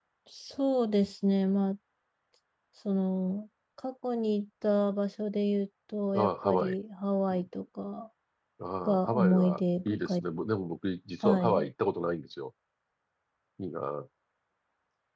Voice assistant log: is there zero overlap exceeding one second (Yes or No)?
No